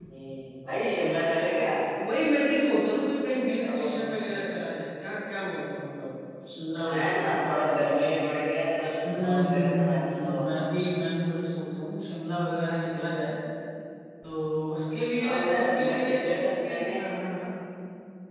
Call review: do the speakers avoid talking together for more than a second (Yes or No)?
No